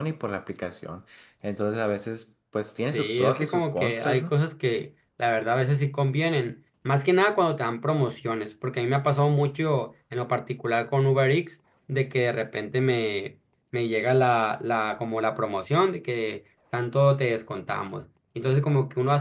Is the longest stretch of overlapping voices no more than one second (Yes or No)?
No